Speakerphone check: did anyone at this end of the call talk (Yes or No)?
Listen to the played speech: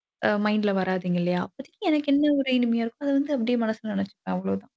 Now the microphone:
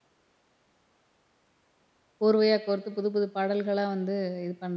Yes